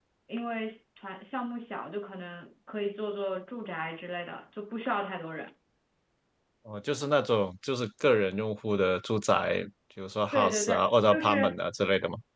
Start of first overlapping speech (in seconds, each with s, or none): 10.3 s